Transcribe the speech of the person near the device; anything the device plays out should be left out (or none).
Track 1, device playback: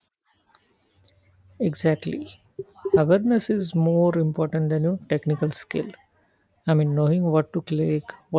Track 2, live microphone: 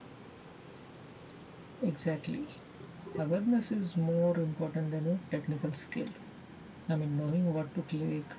none